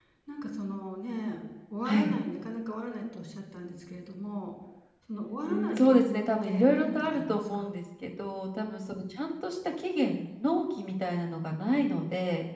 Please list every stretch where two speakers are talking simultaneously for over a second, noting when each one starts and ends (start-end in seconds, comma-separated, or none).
5.4-7.7